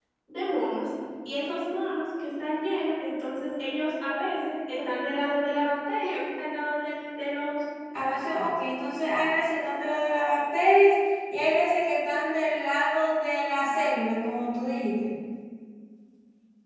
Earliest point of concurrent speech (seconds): none

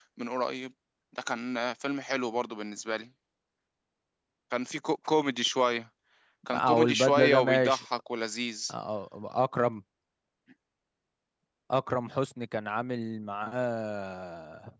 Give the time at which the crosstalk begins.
6.5 s

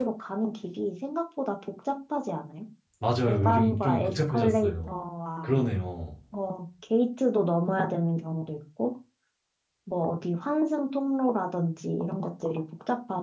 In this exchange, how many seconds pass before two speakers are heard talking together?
3.3 s

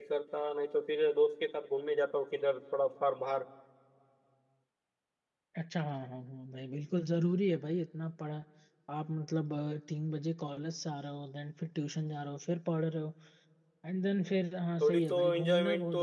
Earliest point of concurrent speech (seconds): 14.8 s

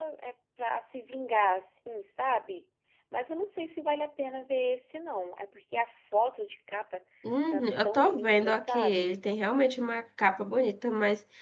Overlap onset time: 7.5 s

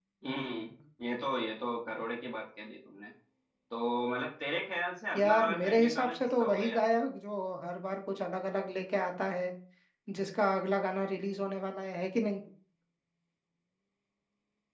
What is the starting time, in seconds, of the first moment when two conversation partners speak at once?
5.1 s

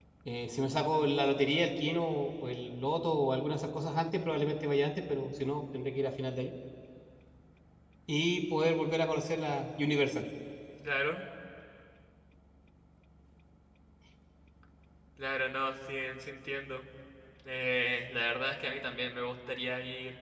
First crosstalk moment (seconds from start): none

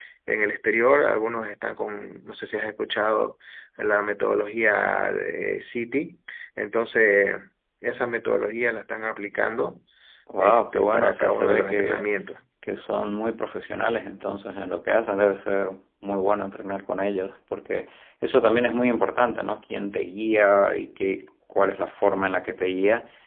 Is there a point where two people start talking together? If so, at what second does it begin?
10.4 s

